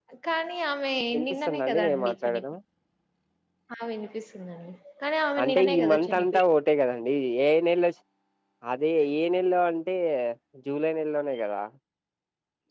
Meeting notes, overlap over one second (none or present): present